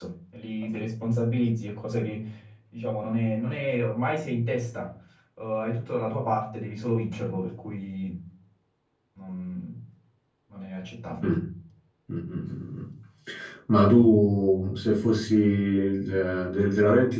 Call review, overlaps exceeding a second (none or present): none